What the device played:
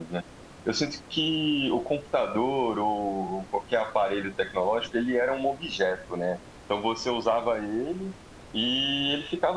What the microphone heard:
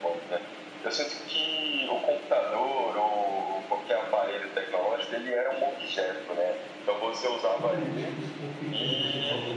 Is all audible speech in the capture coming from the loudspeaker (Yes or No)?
No